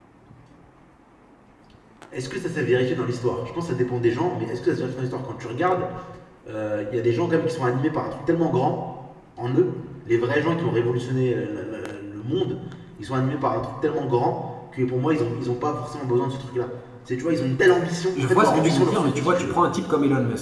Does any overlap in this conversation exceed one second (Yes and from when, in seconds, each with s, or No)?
Yes, from 18.1 s